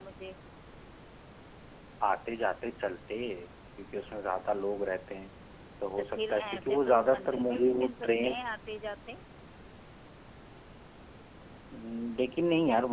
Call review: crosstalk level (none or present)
present